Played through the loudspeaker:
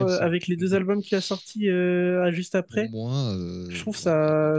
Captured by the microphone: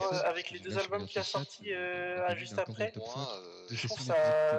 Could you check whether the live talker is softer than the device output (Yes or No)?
Yes